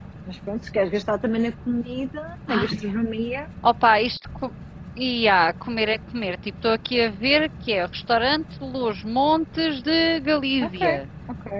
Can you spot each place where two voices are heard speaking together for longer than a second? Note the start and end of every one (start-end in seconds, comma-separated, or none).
none